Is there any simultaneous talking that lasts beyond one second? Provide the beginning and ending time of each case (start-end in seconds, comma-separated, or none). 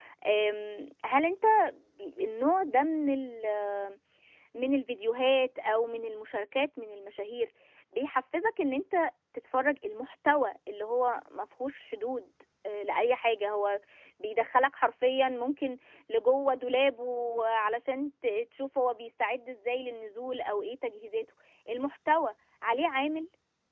none